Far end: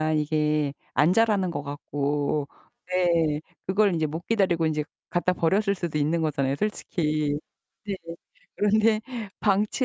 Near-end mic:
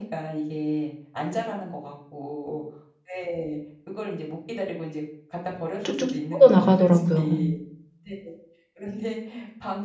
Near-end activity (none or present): present